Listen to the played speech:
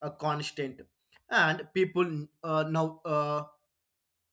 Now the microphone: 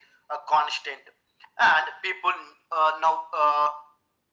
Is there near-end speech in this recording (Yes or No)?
No